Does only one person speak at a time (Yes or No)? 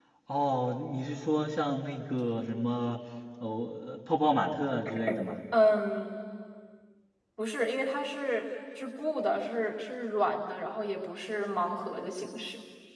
Yes